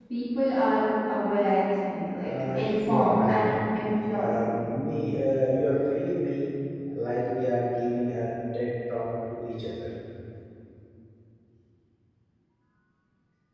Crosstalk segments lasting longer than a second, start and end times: 2.2-3.5

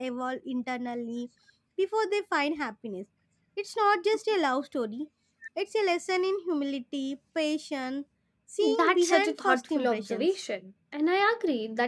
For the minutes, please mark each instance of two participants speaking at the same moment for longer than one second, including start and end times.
8.8-10.3

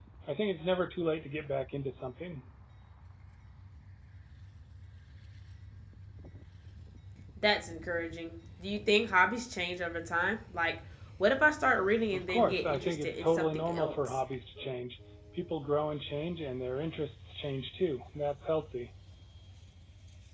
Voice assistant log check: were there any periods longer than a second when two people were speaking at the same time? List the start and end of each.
12.1-13.9

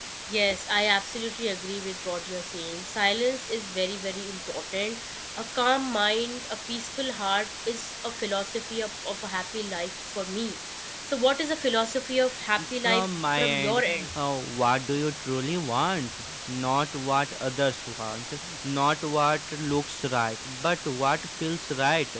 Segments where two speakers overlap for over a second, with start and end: 12.8-14.1

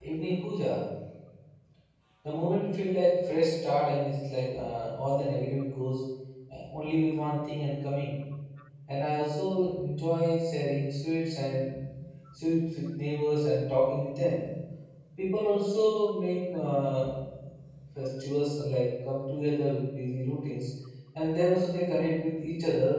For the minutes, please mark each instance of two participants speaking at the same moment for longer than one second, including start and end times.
none

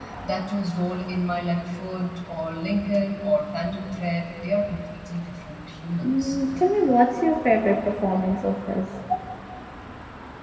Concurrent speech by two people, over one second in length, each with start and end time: none

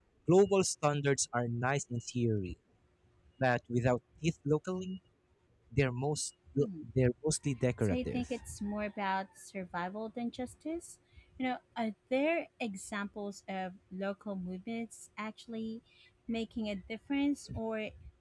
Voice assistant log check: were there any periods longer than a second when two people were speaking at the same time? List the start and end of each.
none

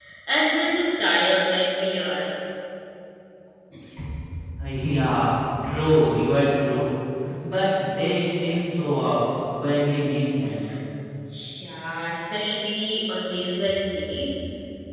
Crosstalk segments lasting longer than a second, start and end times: none

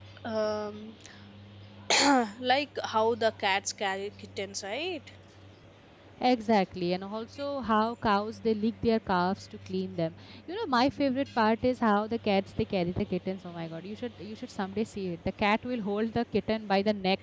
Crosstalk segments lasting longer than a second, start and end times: none

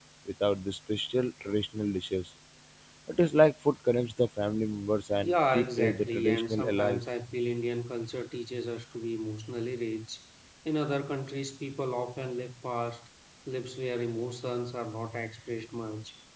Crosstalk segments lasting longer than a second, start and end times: 5.2-7.0

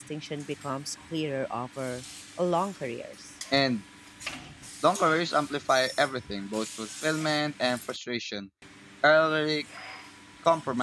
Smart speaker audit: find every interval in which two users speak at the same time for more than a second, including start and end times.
none

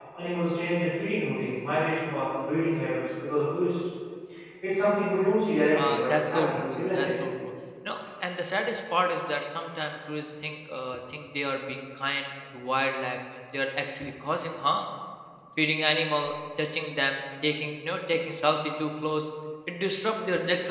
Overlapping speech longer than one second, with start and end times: 5.8-7.1

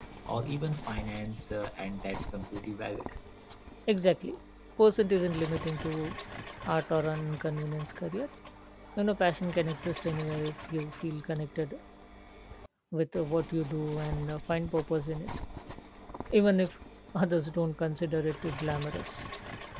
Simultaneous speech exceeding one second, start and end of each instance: none

